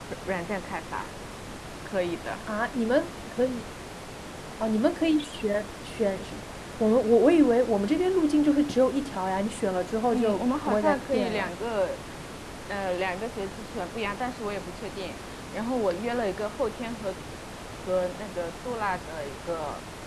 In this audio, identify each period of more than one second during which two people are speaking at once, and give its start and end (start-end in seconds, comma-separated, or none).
10.1-11.5